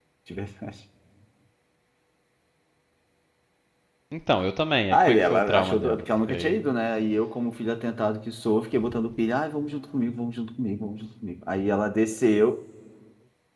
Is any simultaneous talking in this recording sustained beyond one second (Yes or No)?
Yes